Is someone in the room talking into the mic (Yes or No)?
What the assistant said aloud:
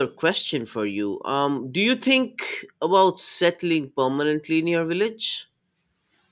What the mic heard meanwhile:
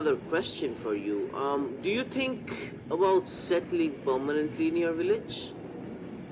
No